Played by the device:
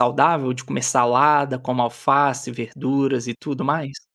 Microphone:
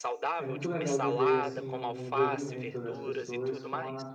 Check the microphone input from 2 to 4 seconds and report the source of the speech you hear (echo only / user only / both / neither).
both